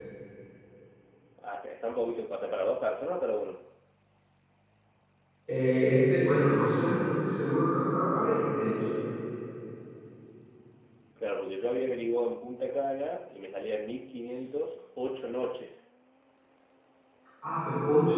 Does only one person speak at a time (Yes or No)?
Yes